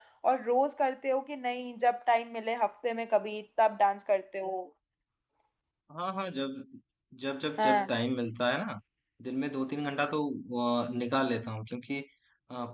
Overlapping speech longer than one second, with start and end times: none

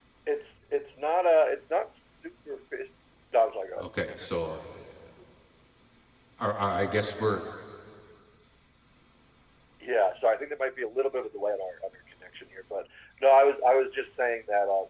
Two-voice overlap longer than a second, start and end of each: none

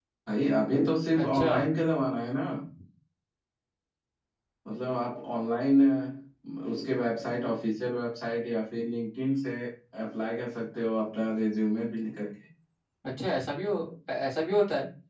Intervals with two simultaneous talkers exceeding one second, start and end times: none

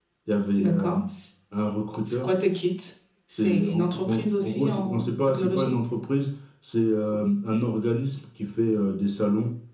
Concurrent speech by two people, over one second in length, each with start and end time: 3.3-5.7

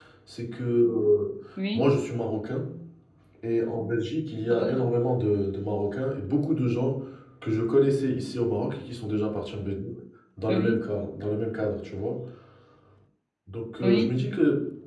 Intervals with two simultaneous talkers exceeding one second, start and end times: none

